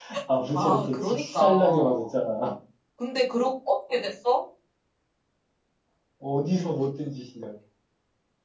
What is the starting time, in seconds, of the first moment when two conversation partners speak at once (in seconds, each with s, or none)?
0.6 s